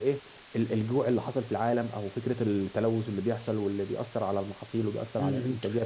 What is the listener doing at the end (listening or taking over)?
taking over